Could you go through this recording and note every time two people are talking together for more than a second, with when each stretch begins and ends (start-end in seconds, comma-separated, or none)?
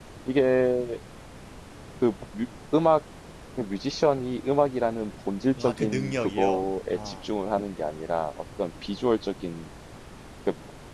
5.6-7.2